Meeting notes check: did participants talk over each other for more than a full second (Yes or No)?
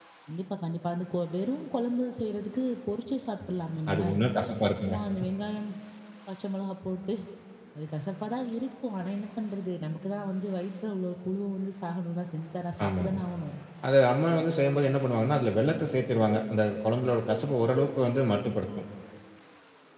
No